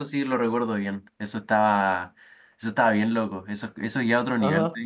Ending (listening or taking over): taking over